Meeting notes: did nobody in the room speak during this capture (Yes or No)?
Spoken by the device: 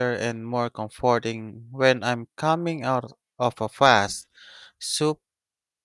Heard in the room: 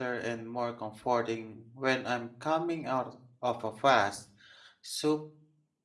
Yes